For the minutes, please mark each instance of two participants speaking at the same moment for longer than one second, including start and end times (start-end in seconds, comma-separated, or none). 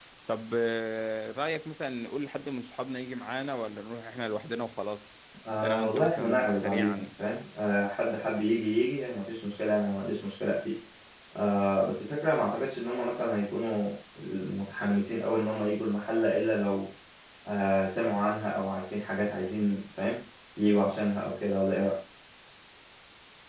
5.6-7.1